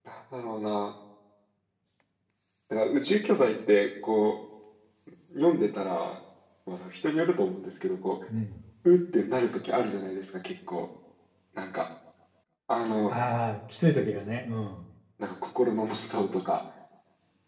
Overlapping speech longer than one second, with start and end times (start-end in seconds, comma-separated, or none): none